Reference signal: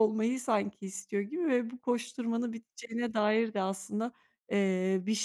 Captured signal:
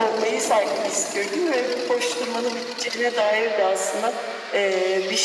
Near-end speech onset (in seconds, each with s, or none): none